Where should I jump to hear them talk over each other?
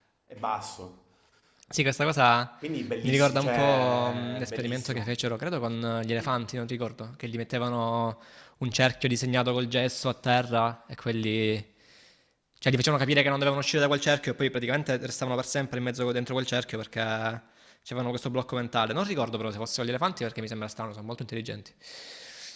3.0 s

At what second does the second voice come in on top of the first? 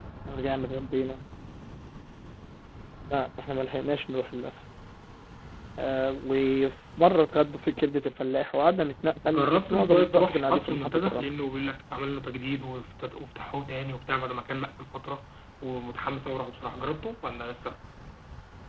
9.3 s

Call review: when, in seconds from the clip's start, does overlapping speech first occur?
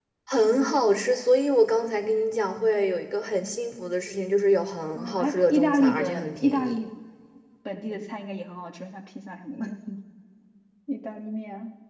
5.0 s

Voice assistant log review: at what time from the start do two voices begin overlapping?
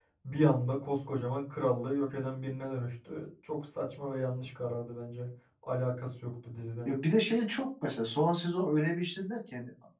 none

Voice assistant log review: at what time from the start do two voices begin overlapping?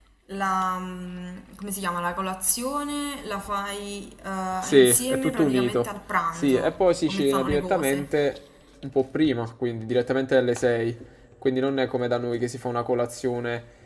4.6 s

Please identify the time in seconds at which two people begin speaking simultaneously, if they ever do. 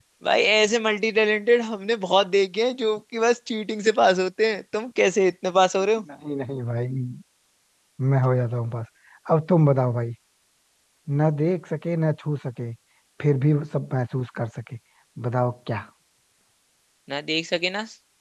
none

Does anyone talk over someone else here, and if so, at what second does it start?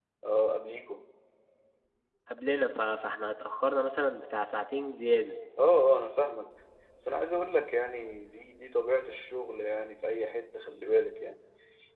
none

